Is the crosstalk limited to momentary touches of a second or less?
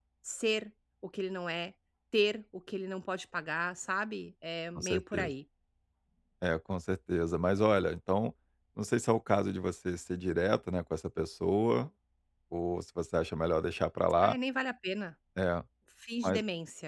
Yes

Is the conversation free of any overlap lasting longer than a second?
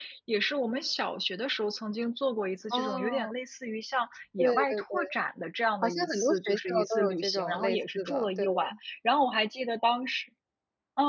No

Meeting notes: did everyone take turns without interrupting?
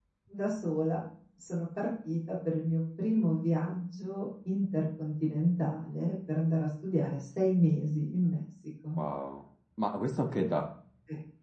Yes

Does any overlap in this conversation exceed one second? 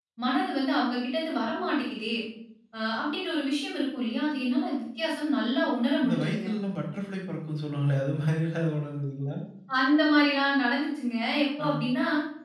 No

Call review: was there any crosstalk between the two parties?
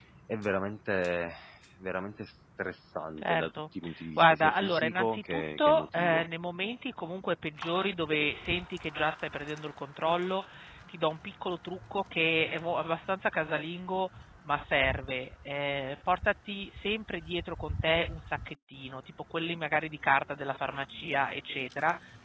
Yes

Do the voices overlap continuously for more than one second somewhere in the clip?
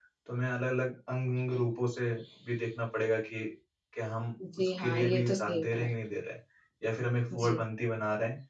Yes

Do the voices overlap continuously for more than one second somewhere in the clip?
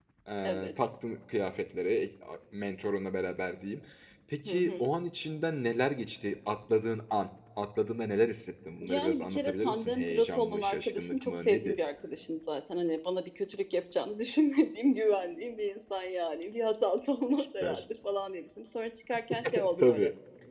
Yes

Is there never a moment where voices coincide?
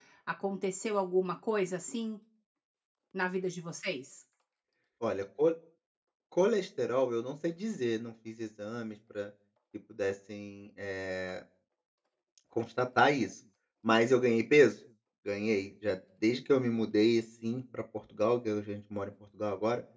Yes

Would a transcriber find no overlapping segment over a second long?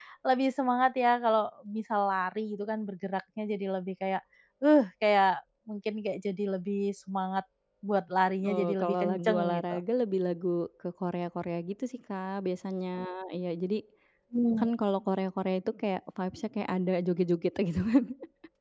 No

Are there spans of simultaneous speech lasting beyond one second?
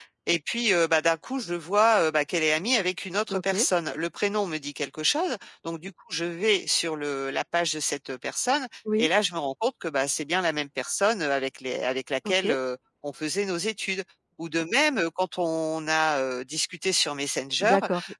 No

